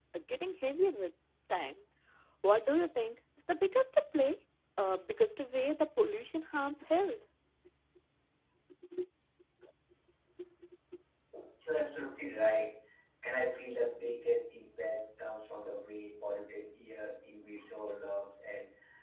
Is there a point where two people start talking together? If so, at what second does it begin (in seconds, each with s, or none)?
none